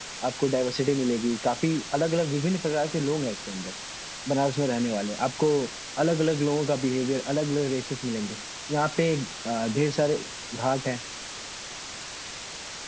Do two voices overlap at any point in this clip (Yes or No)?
No